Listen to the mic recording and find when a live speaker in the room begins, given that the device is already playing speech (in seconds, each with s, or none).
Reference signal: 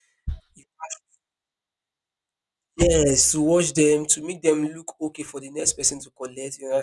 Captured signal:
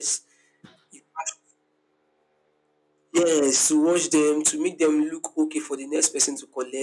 none